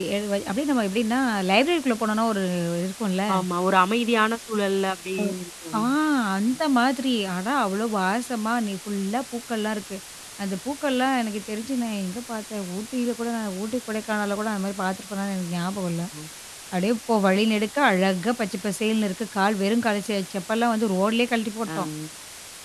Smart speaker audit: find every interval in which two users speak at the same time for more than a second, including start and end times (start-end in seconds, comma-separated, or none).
none